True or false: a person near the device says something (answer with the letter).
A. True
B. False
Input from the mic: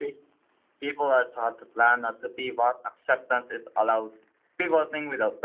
B